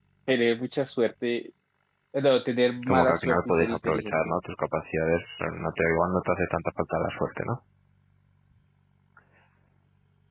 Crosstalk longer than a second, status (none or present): present